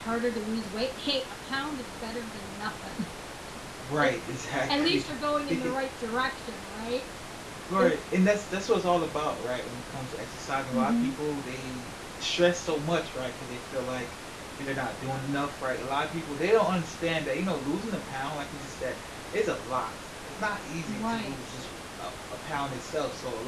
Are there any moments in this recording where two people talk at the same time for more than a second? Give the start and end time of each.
none

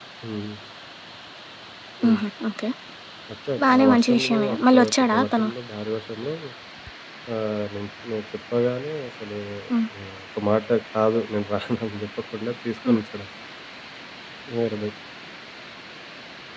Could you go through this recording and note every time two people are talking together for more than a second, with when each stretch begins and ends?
3.6-5.5

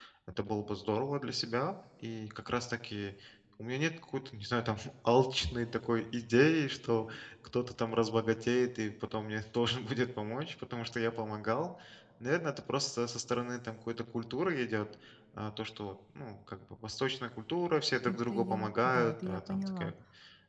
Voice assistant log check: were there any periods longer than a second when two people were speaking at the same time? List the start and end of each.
18.1-19.9

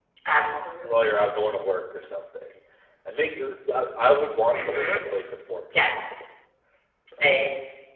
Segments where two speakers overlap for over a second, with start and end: none

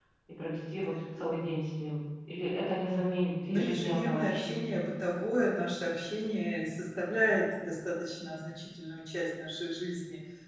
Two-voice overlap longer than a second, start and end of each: 3.5-4.7

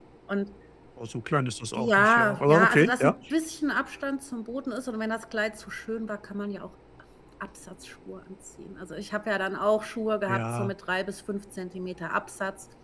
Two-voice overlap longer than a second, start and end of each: 1.7-3.1

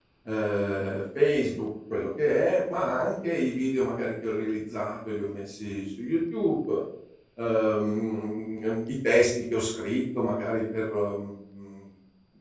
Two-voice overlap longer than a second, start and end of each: none

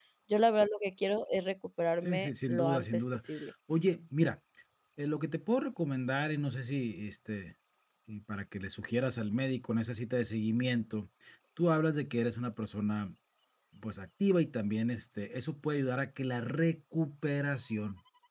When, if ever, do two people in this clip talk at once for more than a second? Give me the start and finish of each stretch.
2.0-3.2

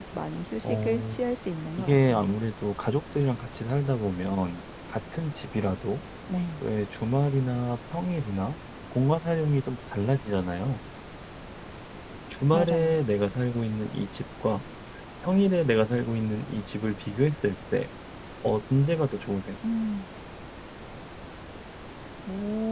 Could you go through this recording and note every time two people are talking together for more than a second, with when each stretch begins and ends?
none

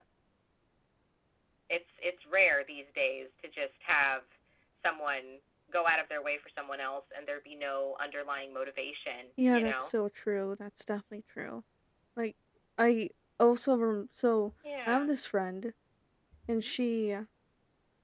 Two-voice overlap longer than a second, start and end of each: none

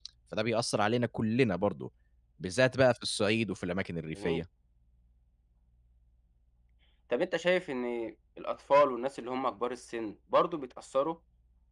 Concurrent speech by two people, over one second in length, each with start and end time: none

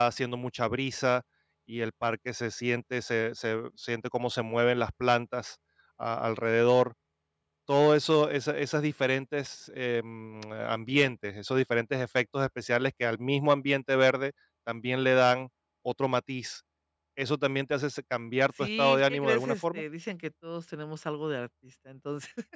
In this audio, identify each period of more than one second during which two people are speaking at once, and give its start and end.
18.6-19.8

